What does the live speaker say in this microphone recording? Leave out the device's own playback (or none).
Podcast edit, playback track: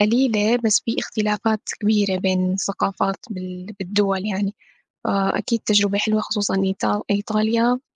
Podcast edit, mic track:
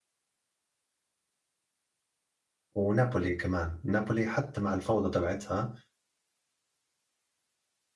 ونابولي كمان، نابولي حتى مع الفوضى تبعتها،